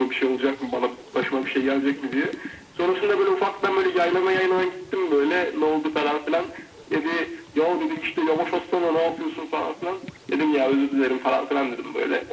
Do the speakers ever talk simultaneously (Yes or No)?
No